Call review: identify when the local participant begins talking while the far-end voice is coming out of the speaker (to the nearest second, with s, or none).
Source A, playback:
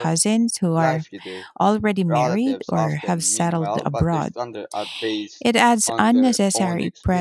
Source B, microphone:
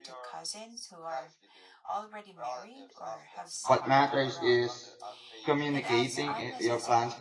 4 s